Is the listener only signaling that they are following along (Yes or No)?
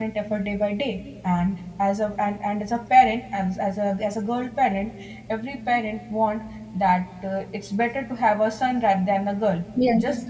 Yes